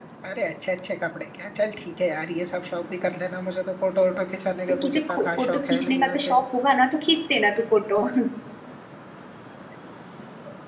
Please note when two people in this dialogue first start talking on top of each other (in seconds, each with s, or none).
4.7 s